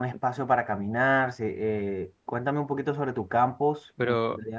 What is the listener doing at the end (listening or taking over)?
taking over